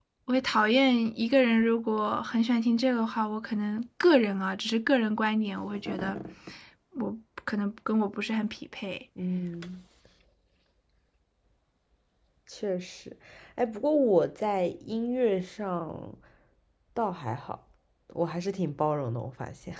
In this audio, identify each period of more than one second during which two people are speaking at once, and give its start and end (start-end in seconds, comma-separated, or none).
none